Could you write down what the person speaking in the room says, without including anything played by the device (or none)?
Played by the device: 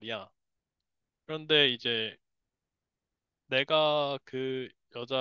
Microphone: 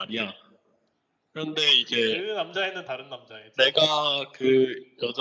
그 남자애는 다른 남자애지?